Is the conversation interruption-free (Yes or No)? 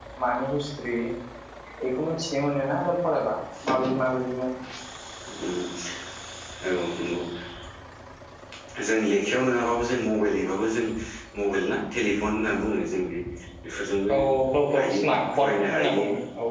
No